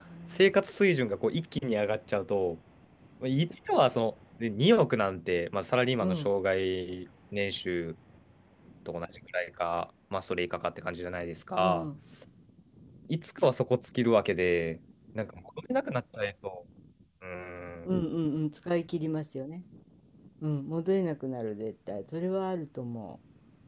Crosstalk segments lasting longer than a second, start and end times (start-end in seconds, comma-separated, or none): none